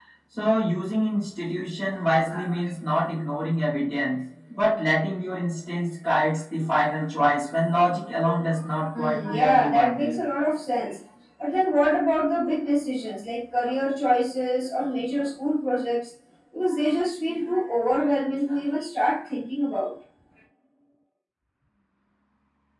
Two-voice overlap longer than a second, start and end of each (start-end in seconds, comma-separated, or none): 9.0-10.2